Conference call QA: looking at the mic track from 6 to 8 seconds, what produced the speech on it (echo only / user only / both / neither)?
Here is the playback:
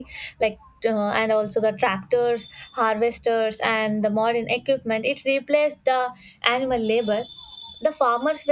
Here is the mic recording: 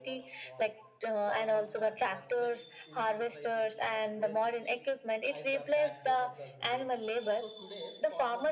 both